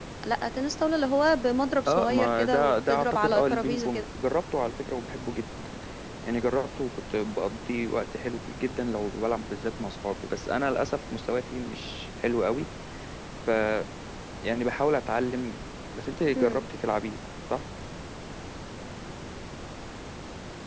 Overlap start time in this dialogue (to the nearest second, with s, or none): 2 s